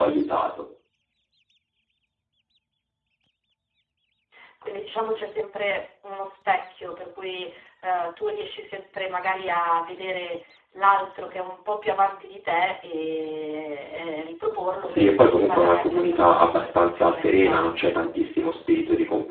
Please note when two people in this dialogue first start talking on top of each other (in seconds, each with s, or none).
14.8 s